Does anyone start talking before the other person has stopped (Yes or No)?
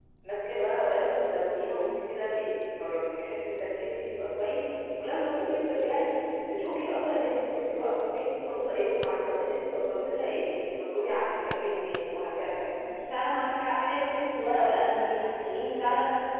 No